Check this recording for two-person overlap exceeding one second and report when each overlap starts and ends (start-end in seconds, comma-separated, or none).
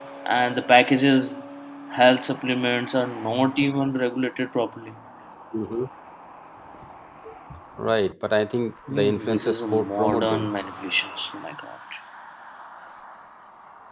8.9-10.4